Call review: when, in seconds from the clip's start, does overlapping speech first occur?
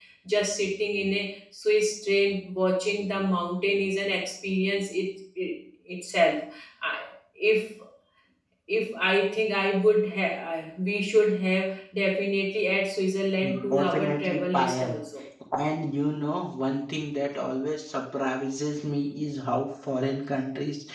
13.7 s

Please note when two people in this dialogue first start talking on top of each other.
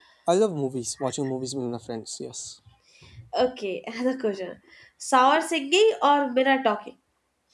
none

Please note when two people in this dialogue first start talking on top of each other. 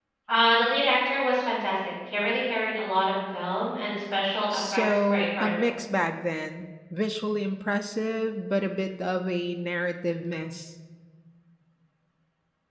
4.5 s

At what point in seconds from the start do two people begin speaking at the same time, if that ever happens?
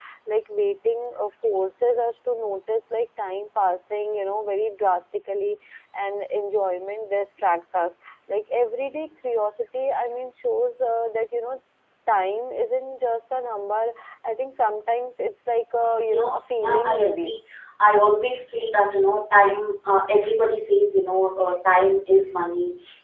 16.1 s

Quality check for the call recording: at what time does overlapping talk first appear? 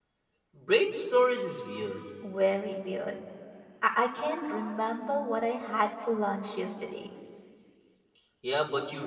none

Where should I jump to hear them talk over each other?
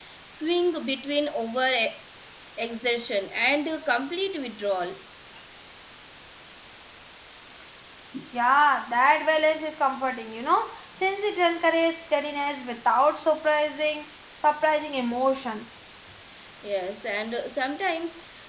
none

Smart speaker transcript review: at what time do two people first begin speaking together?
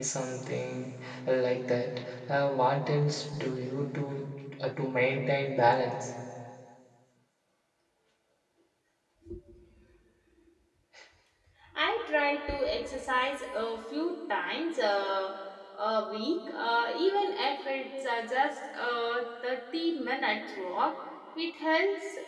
none

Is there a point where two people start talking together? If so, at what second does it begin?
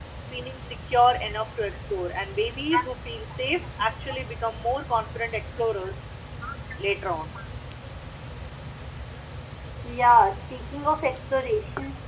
none

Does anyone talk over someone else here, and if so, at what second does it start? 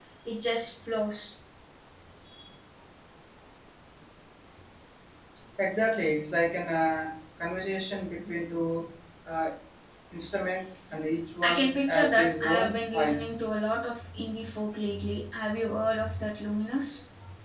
11.4 s

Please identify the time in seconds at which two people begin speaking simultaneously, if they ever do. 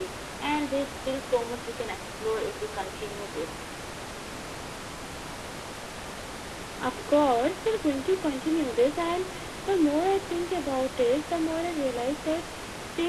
none

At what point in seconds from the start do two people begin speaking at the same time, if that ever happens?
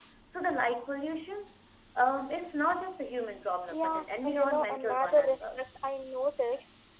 3.7 s

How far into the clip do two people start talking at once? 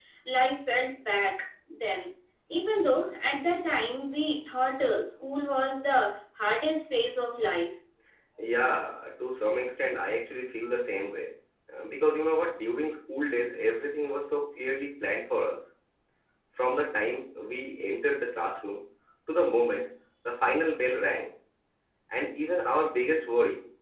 none

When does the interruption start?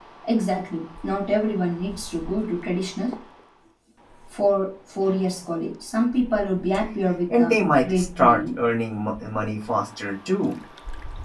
7.3 s

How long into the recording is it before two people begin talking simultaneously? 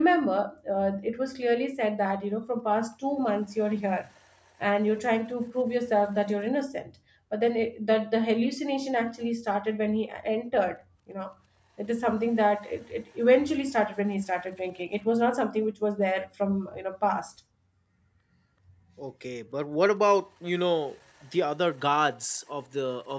none

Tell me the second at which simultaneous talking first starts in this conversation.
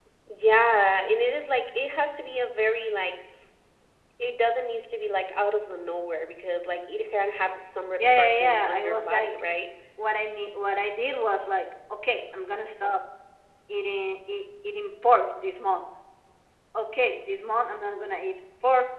8.0 s

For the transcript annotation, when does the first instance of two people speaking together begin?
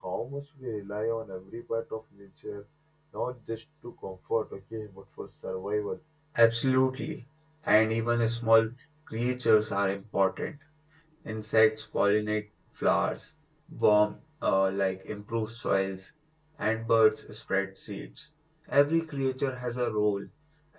none

